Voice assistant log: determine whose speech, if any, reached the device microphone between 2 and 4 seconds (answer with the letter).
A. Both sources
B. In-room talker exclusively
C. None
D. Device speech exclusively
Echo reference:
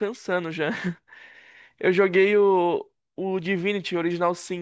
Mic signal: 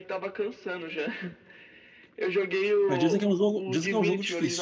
A